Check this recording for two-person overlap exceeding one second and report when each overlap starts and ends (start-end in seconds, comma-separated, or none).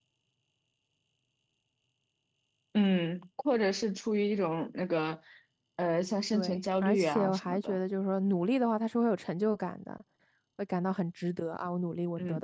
6.3-7.8